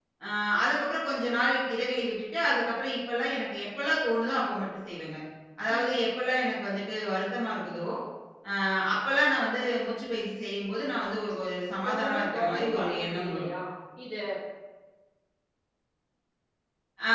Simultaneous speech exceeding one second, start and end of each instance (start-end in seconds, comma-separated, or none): 11.9-13.5